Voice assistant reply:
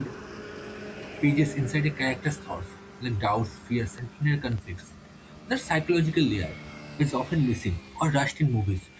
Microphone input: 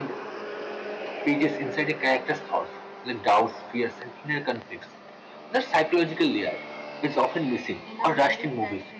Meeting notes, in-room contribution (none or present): present